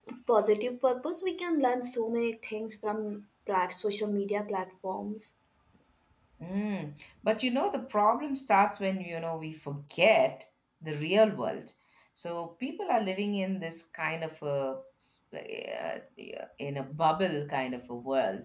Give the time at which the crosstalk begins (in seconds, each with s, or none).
none